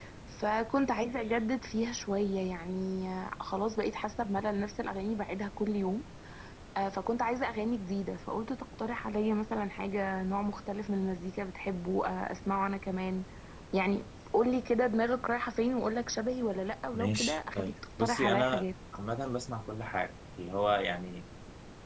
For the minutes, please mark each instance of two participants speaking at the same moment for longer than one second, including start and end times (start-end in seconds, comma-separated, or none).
16.9-18.6